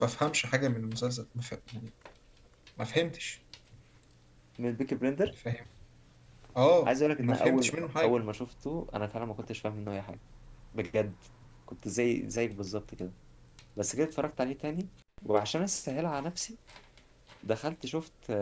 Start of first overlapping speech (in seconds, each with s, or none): 6.8 s